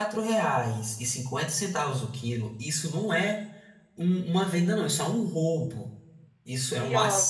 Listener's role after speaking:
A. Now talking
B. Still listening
B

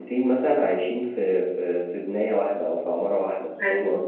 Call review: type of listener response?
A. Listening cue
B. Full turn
B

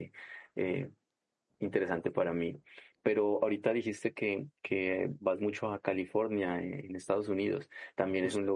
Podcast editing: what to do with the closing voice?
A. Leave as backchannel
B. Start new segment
A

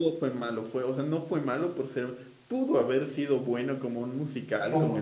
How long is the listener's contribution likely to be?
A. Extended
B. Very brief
B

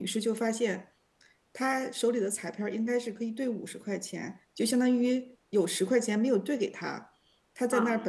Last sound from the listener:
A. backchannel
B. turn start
A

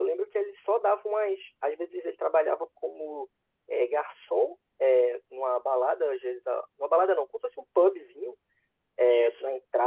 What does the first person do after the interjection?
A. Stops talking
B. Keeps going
B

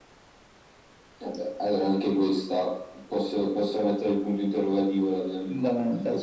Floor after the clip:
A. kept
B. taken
B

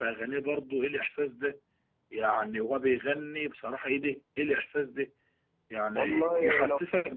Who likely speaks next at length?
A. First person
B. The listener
A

